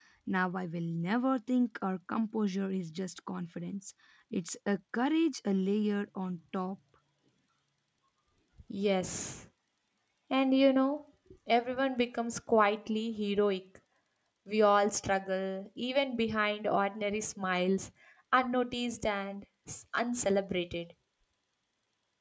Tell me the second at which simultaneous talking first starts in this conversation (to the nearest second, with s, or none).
none